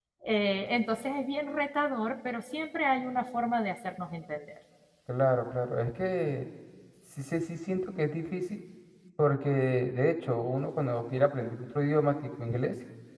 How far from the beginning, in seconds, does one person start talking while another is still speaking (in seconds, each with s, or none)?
none